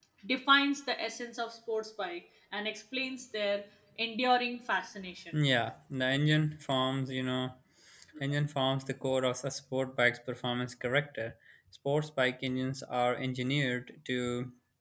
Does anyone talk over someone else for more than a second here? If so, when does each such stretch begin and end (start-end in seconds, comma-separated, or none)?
none